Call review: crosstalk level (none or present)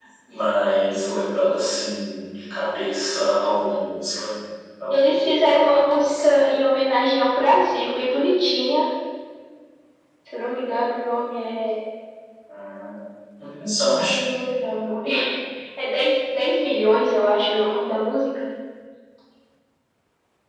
present